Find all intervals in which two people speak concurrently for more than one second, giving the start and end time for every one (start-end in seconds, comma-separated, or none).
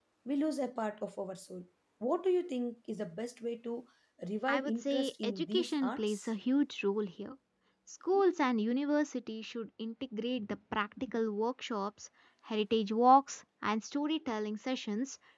4.5-6.3